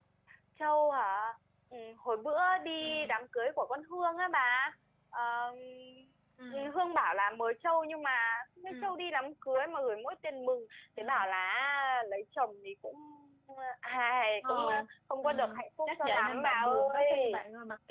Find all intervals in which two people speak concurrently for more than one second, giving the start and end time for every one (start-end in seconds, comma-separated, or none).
15.9-17.4